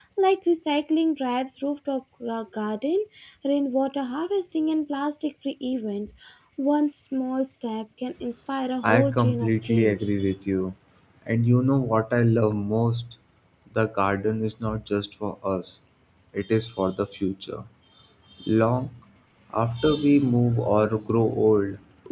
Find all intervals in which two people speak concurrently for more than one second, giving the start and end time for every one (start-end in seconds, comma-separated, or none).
8.8-10.0